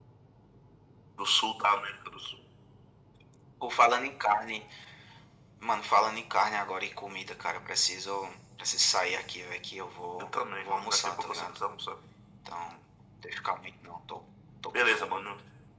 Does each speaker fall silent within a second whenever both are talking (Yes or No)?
No